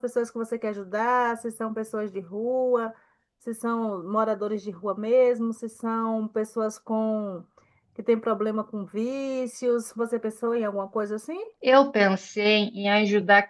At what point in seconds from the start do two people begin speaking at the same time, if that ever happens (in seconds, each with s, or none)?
none